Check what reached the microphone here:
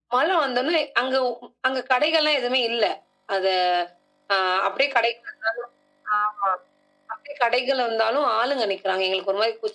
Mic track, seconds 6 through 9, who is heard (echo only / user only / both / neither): echo only